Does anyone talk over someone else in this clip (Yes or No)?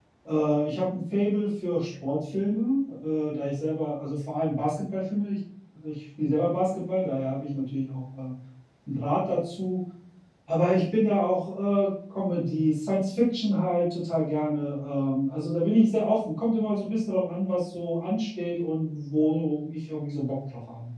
No